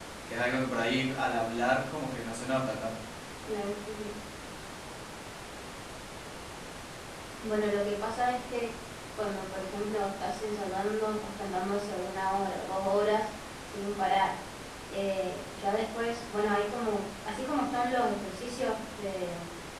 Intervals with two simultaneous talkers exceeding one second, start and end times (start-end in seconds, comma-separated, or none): none